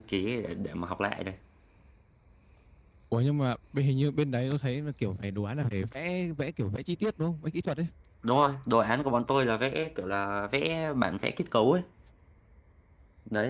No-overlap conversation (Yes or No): Yes